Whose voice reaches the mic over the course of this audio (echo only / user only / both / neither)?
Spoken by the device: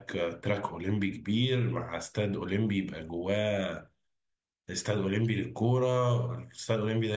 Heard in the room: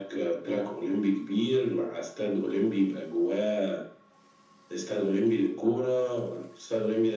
echo only